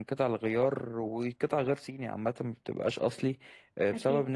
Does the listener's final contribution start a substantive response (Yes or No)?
No